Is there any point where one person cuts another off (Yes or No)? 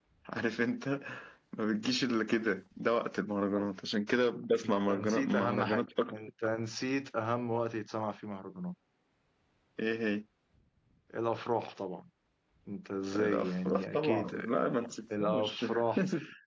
Yes